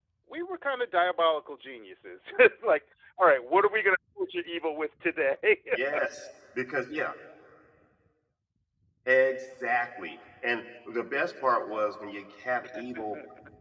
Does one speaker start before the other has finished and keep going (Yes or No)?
No